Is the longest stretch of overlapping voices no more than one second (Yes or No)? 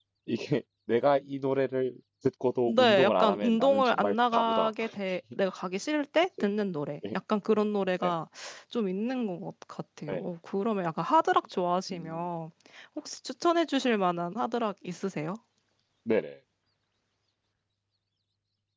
No